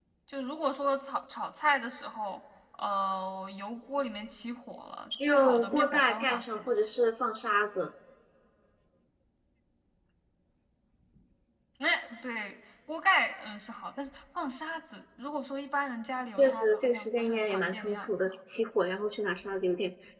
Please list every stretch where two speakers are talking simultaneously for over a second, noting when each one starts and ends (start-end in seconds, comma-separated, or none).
5.3-6.8, 16.4-18.3